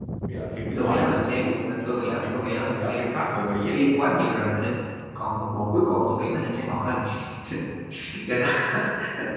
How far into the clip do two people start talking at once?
0.8 s

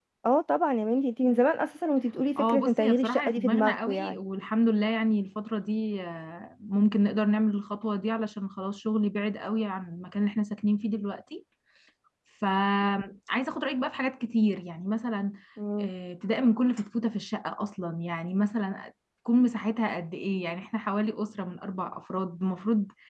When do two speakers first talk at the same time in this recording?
2.4 s

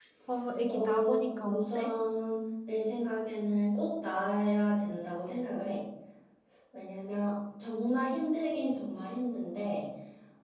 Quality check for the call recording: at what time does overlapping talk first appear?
0.7 s

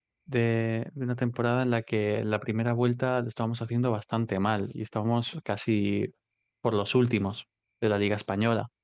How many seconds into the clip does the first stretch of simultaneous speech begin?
none

